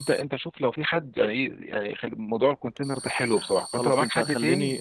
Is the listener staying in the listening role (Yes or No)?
No